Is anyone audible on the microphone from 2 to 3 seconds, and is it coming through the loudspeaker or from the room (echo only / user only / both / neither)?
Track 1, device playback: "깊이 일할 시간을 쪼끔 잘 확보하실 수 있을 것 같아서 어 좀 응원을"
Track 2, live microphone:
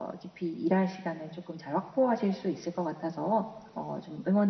echo only